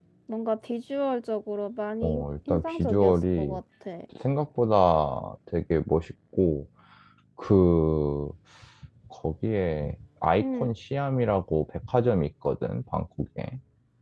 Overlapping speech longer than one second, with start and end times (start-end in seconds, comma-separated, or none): 2.0-3.6